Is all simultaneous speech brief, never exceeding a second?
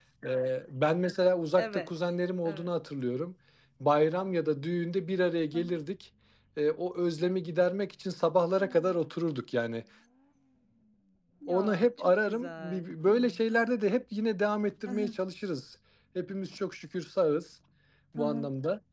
No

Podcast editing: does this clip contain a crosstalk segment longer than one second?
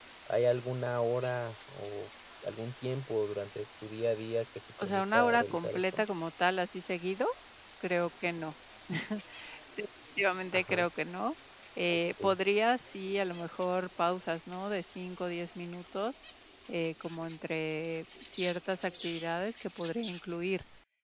Yes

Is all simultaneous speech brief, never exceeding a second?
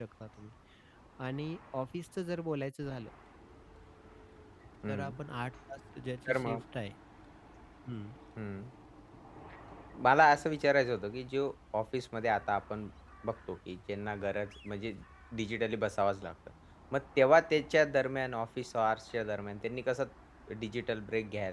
Yes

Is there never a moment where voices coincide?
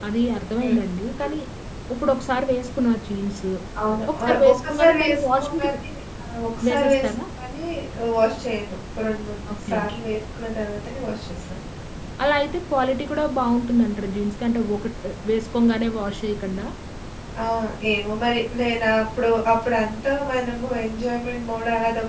No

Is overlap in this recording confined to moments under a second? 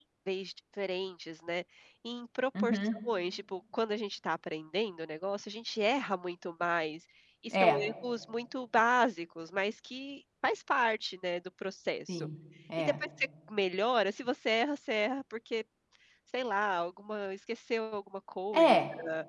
Yes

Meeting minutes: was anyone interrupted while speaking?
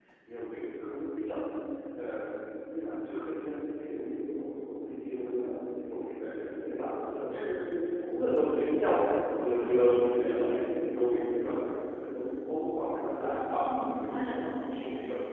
Yes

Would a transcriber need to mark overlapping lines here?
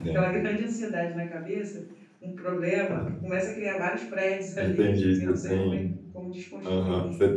Yes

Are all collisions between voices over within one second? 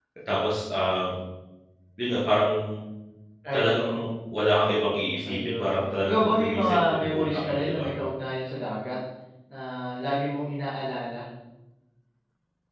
No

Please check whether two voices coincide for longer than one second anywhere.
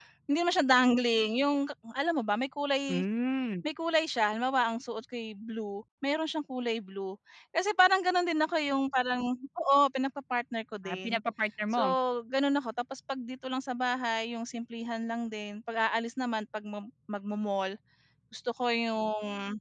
No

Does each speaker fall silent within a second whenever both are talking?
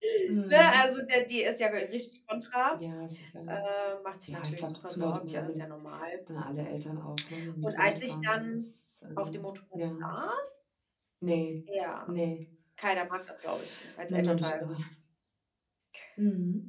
No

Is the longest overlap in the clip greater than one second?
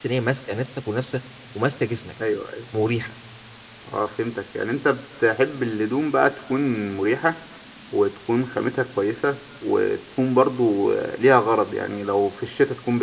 No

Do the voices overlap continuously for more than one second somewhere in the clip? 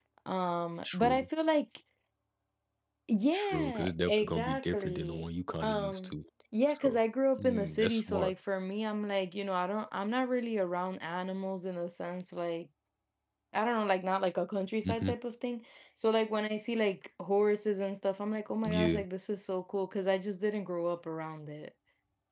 Yes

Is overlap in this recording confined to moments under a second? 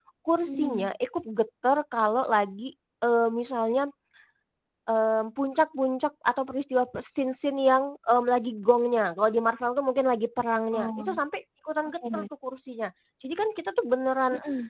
Yes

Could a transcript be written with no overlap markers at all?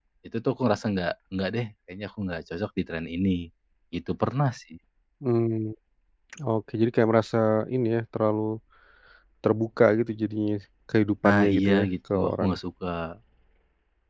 No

